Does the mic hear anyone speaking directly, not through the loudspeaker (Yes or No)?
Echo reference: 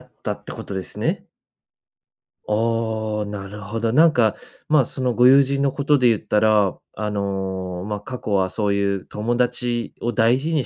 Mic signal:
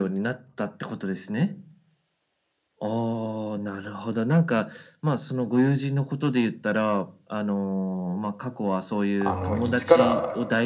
Yes